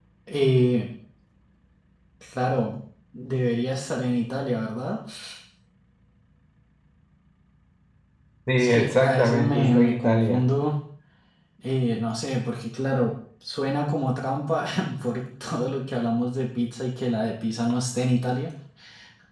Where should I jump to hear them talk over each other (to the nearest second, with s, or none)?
9 s